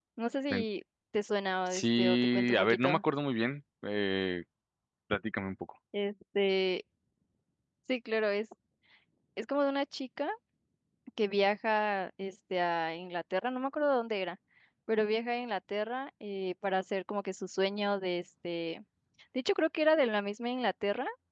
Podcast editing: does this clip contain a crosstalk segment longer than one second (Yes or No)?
Yes